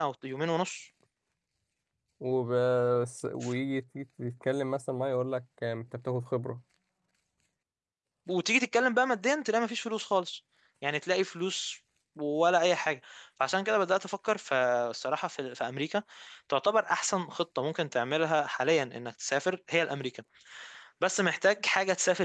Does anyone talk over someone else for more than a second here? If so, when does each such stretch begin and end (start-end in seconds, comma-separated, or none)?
none